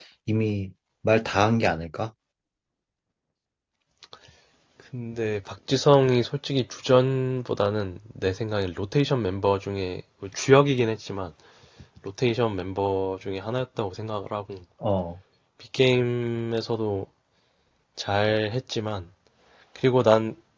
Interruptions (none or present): none